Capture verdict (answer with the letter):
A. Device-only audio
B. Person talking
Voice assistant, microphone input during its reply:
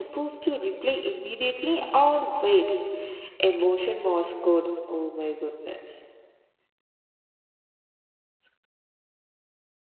A